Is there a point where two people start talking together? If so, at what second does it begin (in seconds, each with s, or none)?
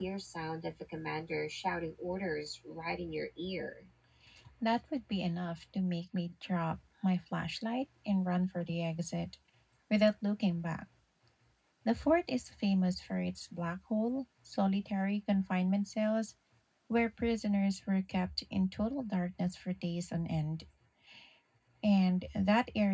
none